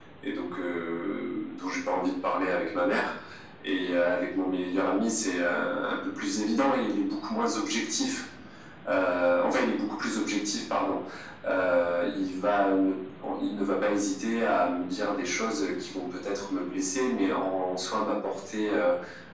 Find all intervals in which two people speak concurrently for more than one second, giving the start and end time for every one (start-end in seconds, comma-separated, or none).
none